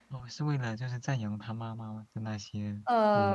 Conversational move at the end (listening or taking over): taking over